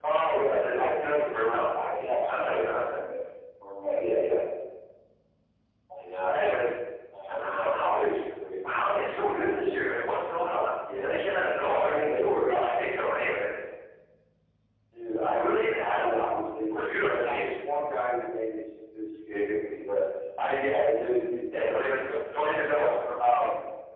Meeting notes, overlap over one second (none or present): present